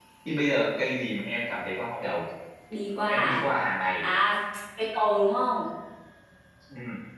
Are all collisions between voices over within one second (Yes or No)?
Yes